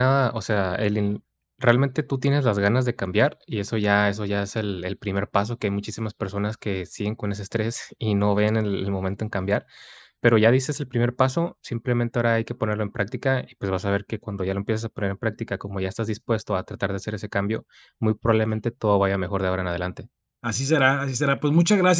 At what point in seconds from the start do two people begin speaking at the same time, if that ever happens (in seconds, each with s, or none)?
none